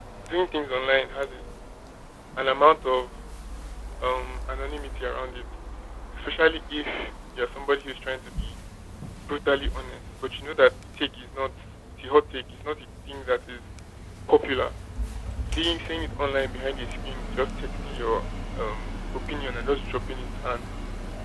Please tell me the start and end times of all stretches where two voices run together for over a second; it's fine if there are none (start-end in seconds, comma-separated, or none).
none